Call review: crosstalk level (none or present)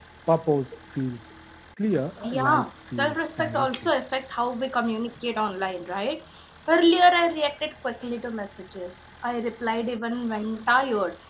present